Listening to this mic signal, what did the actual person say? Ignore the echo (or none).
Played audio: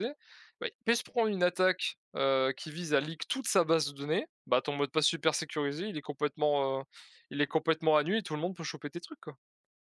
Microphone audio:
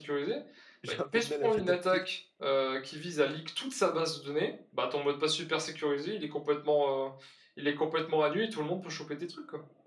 J'ai un peu de mal à m'adapter,